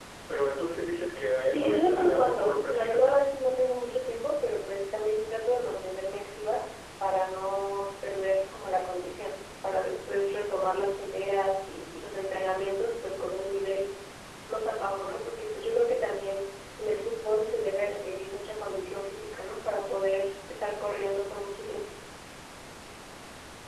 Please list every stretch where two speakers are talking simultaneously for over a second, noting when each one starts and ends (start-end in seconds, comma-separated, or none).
1.5-3.1